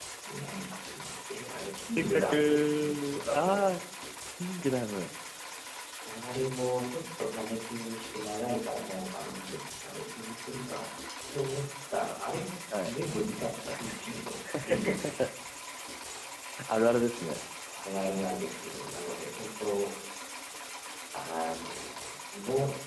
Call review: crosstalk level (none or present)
present